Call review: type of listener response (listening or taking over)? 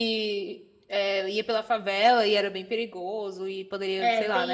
taking over